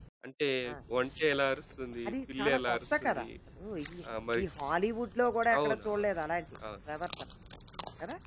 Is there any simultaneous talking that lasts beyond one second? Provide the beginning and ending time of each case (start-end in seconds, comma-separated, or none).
2.1-3.3